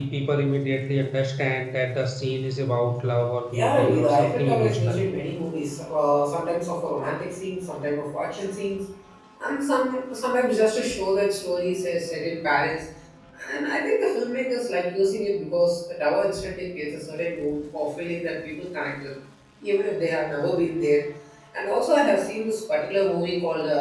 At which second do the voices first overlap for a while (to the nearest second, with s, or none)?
4 s